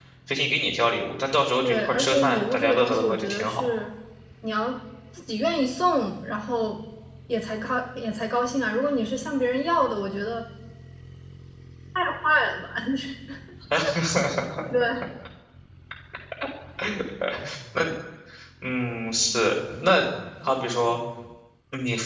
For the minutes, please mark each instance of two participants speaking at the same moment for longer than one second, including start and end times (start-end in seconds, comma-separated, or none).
1.6-3.7